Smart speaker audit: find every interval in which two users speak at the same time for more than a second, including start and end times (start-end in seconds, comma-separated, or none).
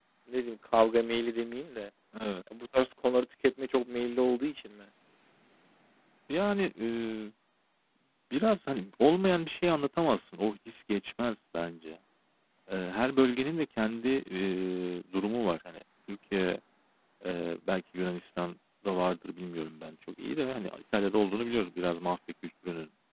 none